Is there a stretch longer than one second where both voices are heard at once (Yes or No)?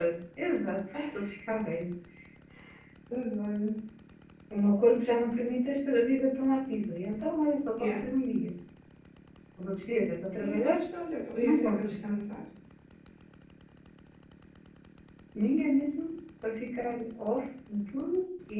No